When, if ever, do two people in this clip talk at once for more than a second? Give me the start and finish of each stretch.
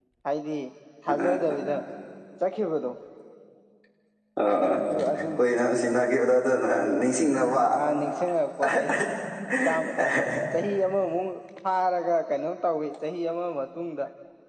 none

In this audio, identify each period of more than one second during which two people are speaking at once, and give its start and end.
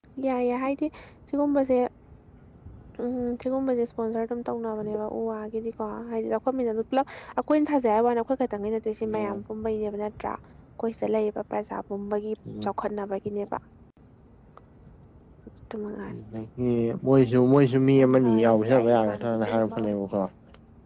18.2-19.9

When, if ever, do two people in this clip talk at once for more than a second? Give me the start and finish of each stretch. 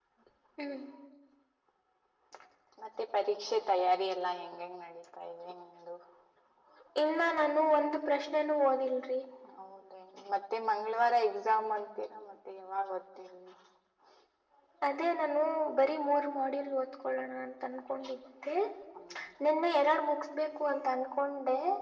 none

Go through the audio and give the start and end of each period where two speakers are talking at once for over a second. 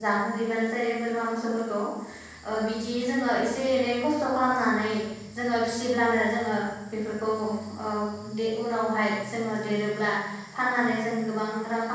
none

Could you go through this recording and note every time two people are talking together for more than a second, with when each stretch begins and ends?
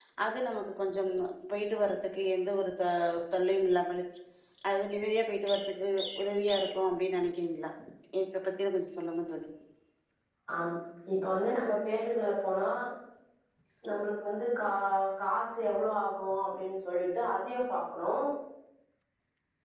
none

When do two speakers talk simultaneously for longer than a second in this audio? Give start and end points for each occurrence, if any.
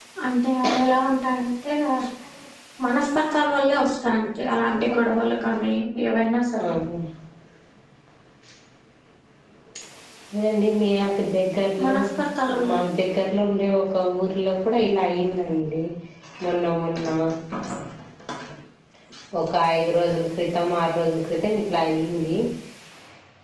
4.4-5.7

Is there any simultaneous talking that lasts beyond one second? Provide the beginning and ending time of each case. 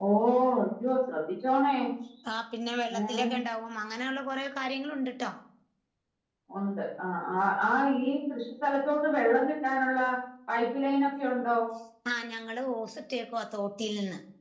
none

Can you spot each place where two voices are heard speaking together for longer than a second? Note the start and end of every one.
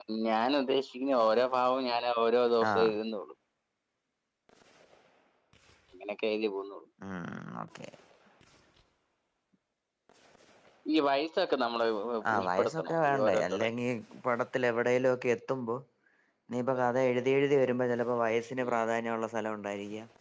12.4-13.7

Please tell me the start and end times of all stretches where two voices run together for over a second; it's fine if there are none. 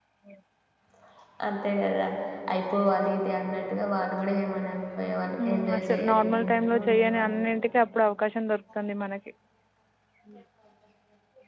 5.5-7.3

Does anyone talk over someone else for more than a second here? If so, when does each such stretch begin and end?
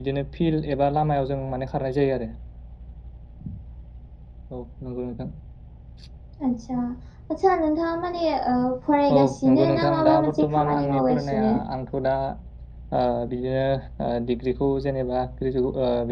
9.1-11.6

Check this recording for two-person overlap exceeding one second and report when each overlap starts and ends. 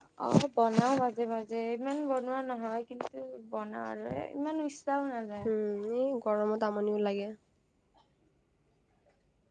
none

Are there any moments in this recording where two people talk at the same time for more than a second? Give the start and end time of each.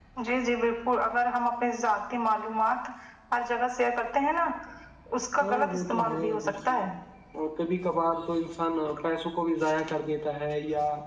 5.4-6.8

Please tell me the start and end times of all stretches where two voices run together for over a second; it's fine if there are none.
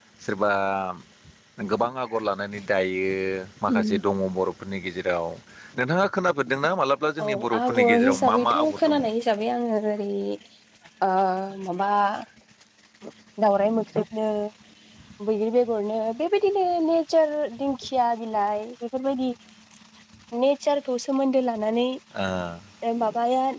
7.2-8.9

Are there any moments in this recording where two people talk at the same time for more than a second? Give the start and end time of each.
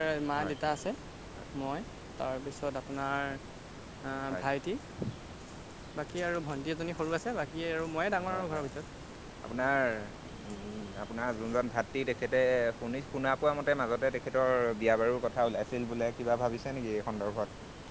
none

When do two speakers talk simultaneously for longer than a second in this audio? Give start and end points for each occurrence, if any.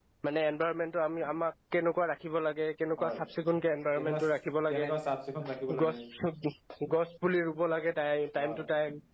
none

